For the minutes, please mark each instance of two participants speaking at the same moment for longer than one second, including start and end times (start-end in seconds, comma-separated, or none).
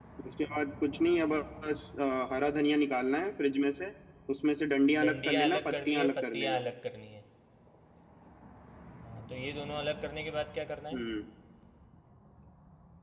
5.0-6.6